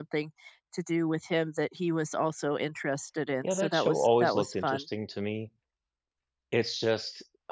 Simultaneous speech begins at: 3.4 s

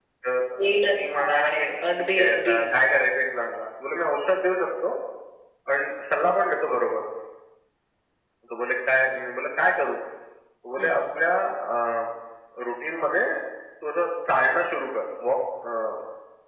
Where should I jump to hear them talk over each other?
0.9 s

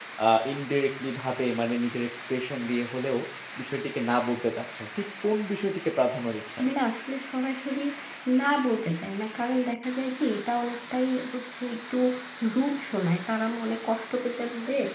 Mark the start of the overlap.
none

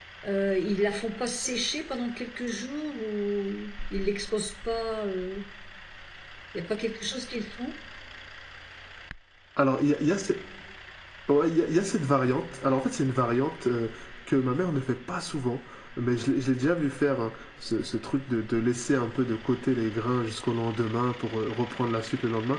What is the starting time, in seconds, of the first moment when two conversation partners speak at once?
none

